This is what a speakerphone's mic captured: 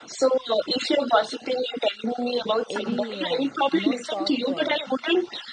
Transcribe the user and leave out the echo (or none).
any um, not talk. Uh,